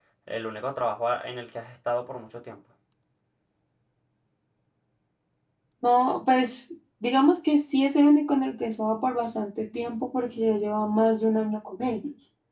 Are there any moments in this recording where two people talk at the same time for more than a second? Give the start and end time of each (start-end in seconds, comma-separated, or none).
none